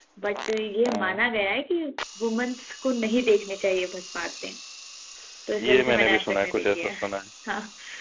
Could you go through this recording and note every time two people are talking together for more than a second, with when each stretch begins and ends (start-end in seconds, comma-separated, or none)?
5.6-6.9